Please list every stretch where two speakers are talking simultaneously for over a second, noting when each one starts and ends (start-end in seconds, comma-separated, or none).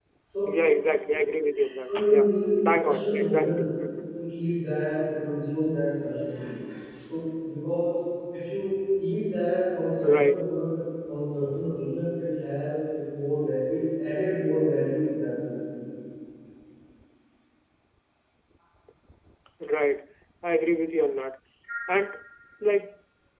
1.8-3.7